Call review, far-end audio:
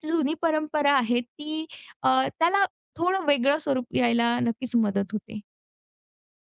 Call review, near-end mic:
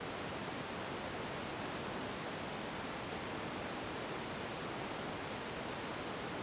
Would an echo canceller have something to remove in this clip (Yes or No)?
No